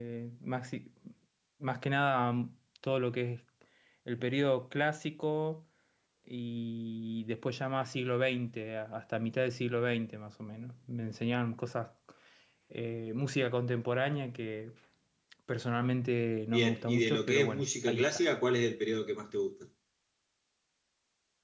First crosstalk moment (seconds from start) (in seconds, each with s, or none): 16.5 s